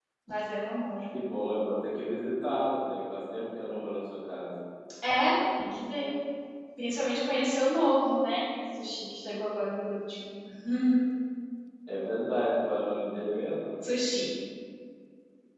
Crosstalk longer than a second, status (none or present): none